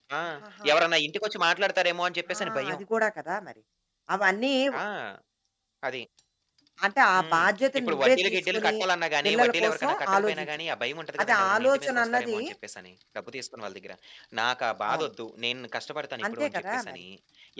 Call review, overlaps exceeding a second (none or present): present